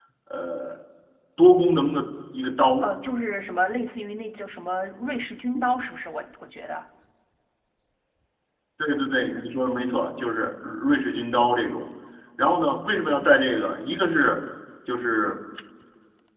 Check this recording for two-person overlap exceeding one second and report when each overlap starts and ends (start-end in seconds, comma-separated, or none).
none